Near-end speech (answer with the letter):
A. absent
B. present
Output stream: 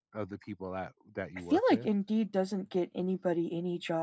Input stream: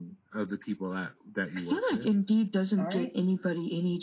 B